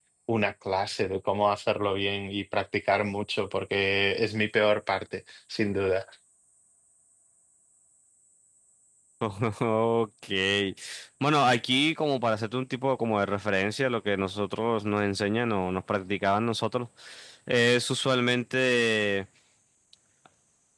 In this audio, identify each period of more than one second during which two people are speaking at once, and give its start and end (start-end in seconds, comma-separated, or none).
none